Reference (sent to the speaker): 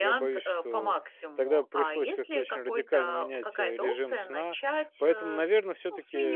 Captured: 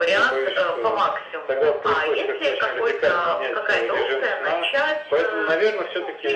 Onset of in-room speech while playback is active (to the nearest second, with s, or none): none